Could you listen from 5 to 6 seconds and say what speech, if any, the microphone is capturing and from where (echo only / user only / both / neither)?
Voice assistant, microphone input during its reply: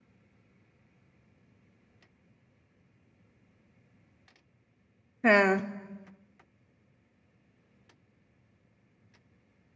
user only